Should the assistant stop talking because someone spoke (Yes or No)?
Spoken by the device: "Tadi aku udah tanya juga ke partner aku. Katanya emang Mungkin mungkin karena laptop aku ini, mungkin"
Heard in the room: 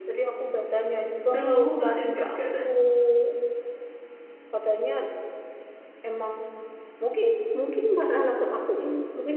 Yes